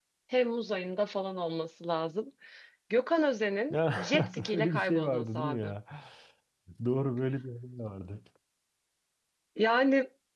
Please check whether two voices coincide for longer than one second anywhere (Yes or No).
Yes